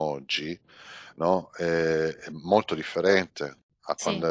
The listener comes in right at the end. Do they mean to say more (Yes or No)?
No